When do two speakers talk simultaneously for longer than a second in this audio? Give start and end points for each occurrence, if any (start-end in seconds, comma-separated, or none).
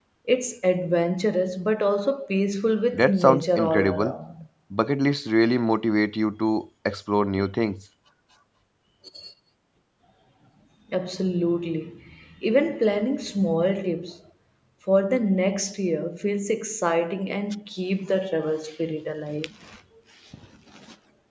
2.9-4.1